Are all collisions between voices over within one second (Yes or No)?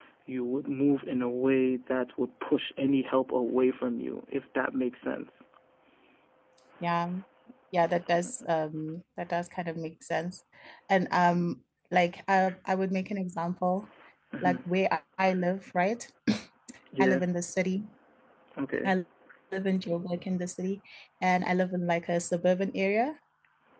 Yes